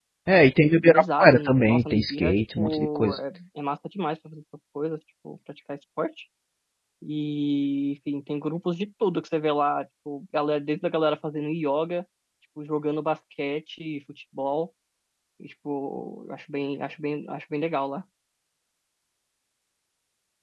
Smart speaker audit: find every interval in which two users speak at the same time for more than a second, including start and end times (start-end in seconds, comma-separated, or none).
0.9-3.2